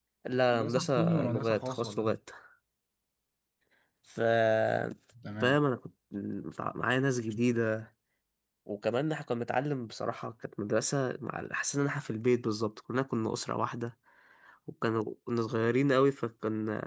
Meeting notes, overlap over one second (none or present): present